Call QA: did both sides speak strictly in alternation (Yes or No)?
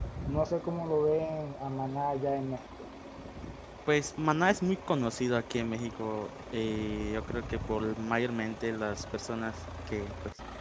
Yes